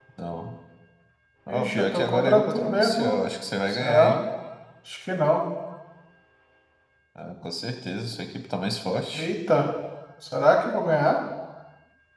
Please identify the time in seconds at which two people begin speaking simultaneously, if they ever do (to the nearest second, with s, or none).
1 s